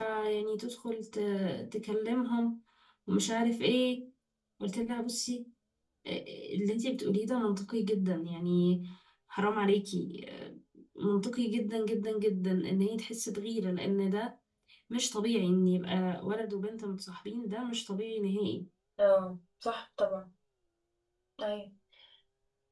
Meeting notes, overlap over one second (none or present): none